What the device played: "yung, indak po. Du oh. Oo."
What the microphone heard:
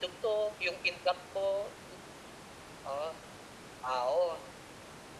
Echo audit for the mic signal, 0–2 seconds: echo only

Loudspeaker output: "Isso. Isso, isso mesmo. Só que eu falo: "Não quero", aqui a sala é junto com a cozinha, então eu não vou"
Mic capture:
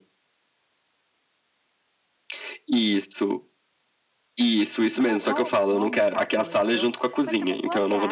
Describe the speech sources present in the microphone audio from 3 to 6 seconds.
both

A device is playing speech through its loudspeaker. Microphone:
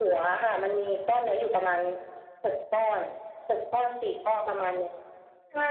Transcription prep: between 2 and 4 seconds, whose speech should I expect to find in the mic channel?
echo only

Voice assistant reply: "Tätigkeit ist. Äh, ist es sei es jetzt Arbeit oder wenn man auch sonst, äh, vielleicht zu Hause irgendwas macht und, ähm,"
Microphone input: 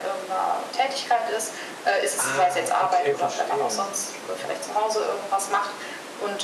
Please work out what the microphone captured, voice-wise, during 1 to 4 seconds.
both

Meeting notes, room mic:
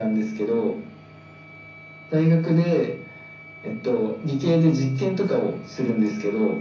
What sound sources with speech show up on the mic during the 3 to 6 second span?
echo only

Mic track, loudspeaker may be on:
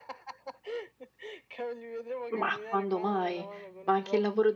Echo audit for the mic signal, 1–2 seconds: echo only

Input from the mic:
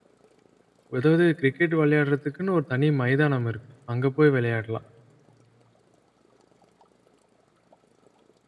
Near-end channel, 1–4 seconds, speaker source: user only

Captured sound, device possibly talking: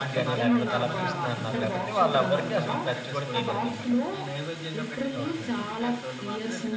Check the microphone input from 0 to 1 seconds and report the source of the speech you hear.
both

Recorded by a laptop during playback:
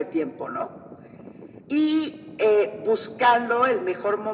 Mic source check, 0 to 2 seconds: echo only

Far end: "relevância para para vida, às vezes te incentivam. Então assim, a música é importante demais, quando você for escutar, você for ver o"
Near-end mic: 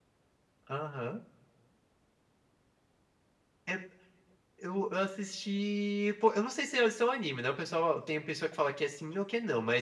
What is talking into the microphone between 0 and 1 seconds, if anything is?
user only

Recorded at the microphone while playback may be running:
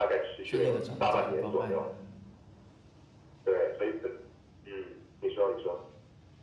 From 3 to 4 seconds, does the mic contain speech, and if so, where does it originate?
echo only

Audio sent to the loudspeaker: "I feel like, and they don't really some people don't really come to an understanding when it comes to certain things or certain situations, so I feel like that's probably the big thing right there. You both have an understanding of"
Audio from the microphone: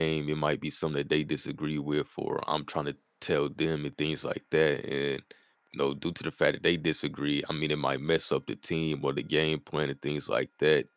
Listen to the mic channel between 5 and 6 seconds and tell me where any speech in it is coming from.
user only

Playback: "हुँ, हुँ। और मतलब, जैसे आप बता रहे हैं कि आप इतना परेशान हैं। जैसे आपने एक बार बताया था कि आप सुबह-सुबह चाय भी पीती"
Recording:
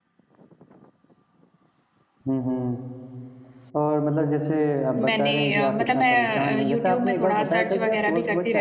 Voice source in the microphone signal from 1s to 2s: neither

